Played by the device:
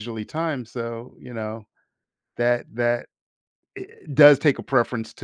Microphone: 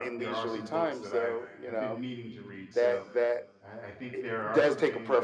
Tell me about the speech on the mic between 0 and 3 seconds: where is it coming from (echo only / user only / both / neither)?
both